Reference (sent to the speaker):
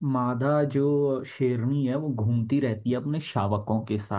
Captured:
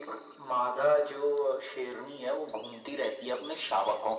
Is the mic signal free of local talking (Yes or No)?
Yes